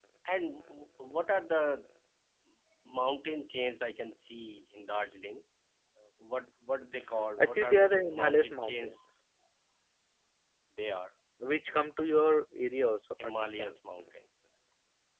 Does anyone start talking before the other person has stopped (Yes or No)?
Yes